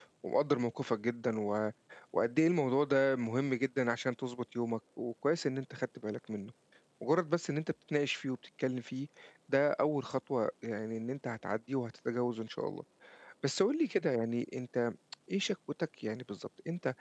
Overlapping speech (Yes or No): No